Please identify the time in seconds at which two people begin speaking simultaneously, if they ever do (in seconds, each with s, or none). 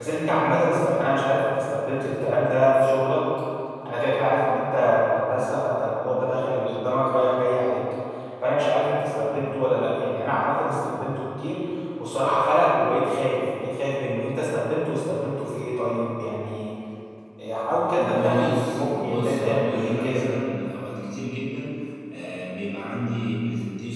18.0 s